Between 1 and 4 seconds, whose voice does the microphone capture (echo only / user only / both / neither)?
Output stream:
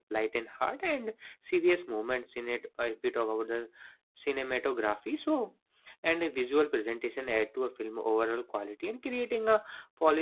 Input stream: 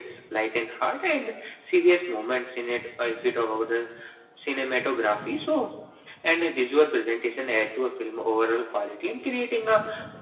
echo only